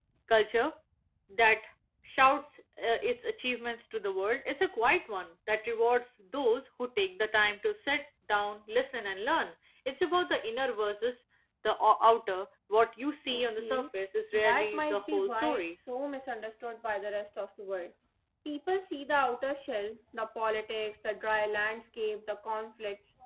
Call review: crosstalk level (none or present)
present